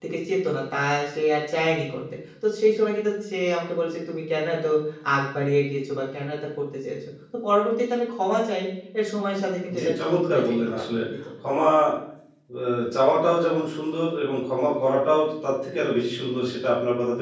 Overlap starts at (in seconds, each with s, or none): 9.8 s